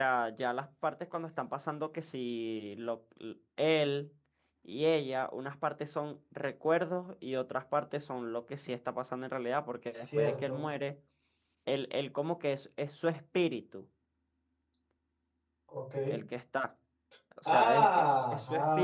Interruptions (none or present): present